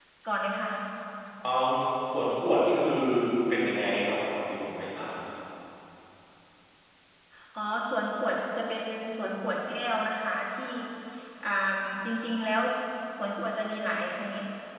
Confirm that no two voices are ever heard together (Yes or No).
Yes